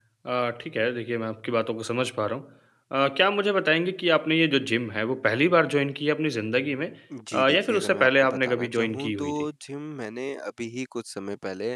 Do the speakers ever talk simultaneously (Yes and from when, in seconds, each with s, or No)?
Yes, from 7.3 s